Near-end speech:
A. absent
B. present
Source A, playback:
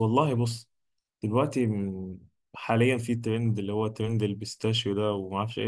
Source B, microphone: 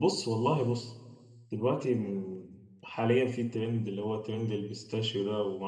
A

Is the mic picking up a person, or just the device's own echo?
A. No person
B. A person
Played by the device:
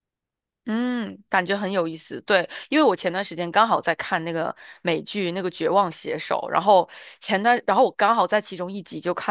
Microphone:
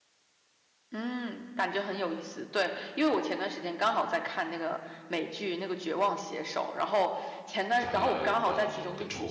B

